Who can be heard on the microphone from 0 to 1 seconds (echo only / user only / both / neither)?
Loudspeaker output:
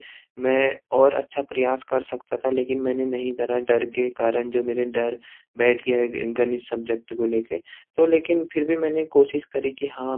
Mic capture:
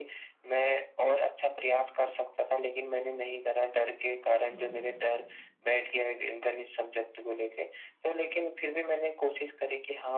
echo only